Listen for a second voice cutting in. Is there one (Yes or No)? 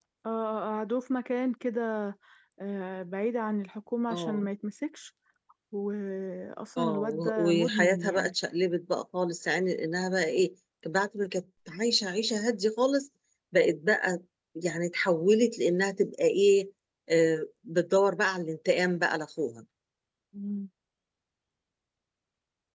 Yes